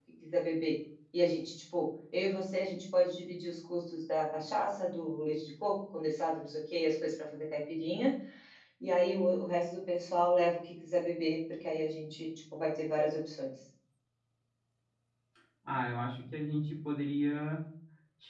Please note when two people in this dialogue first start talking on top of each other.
none

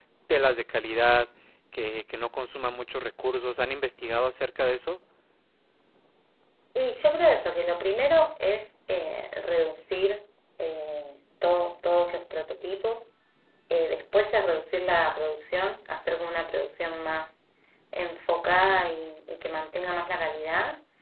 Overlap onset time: none

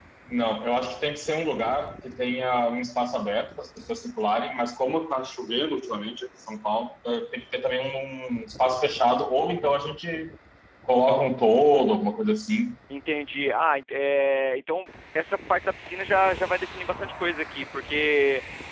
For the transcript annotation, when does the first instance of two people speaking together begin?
none

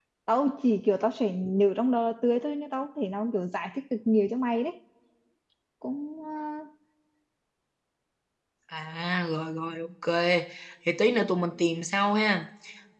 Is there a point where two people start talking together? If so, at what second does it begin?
none

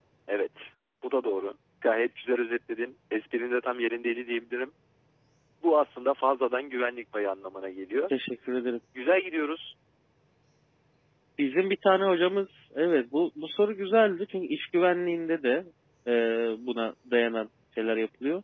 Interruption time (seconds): none

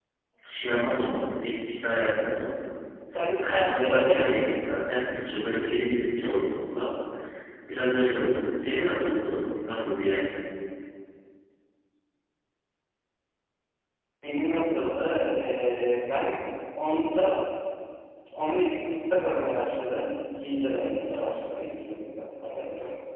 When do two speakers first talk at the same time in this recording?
3.4 s

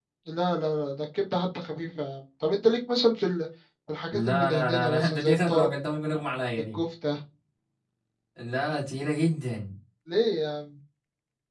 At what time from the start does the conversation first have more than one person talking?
4.1 s

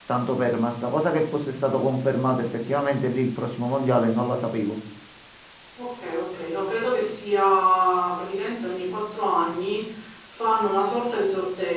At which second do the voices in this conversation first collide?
none

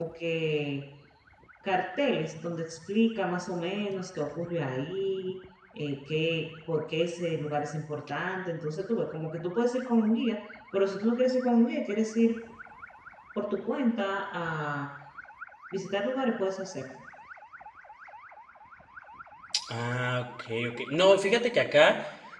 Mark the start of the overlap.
none

